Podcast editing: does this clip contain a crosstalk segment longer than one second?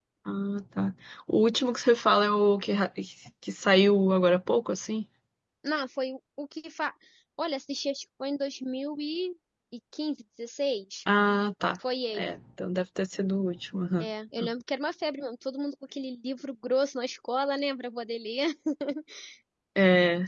No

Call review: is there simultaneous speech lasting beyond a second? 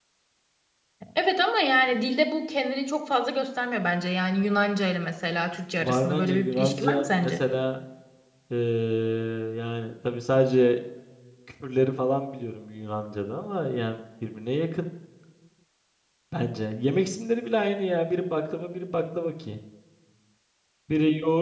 Yes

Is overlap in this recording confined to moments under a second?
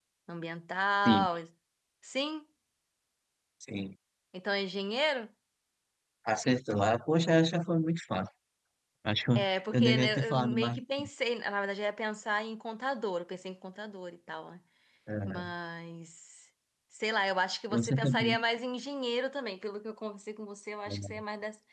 No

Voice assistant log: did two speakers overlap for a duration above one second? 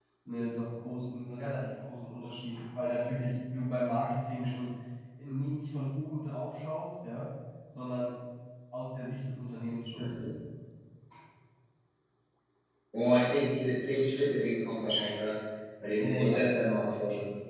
No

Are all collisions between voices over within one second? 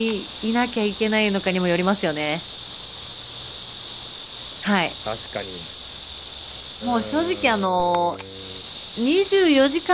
No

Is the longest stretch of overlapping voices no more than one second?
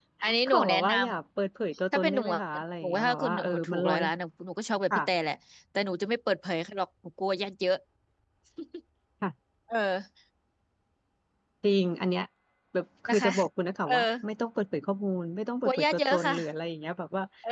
No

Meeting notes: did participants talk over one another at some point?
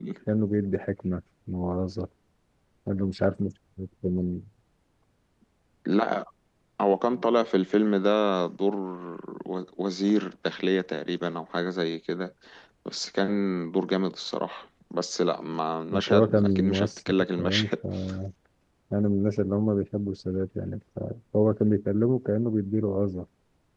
Yes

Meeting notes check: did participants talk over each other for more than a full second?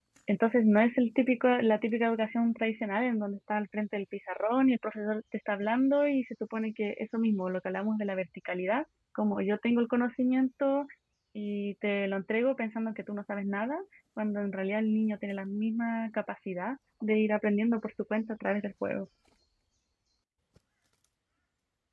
No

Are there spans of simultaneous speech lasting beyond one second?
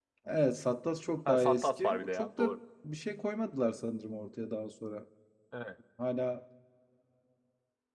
Yes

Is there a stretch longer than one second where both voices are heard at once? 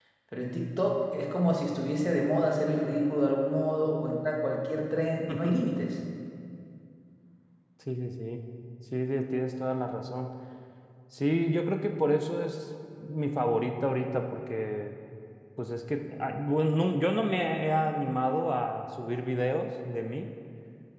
No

